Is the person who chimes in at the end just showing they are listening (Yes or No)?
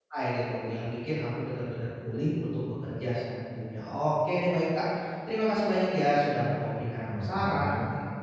Yes